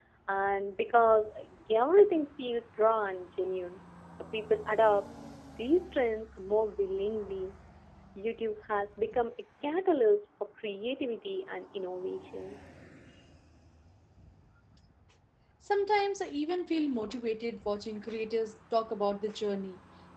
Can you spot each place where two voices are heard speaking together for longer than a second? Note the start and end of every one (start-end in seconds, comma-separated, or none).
none